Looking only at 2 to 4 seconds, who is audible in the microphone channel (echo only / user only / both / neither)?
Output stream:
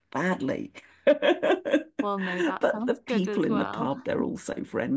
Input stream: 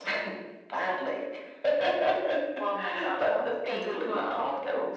echo only